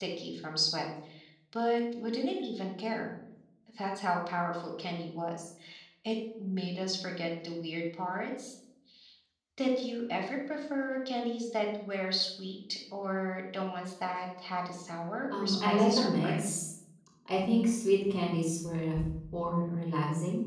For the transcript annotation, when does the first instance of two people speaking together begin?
15.3 s

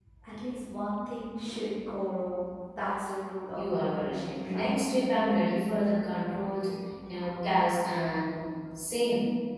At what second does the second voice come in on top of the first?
3.5 s

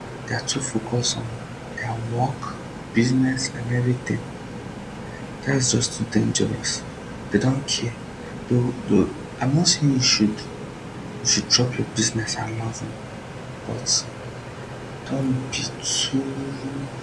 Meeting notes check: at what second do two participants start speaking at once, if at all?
none

